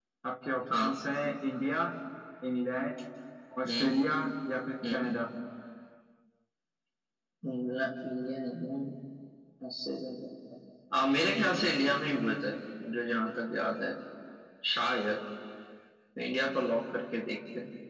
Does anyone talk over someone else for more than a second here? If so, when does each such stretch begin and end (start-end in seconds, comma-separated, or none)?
none